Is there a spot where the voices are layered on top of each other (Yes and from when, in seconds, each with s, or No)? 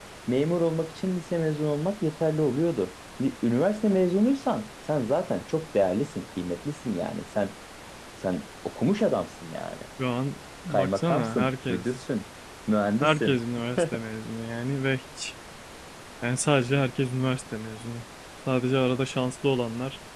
Yes, from 10.7 s